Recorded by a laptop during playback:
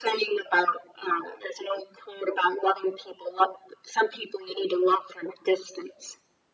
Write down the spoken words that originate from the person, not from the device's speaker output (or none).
none